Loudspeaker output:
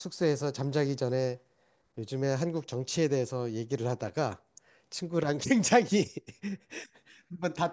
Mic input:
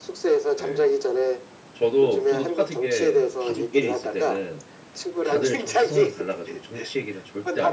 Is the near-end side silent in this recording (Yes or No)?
No